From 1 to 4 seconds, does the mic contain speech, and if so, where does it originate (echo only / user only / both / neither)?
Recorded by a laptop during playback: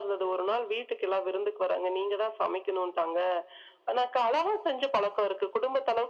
echo only